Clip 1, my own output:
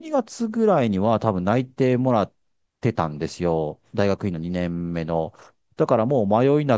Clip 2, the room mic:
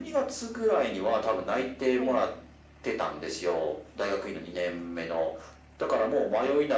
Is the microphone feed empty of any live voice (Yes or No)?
No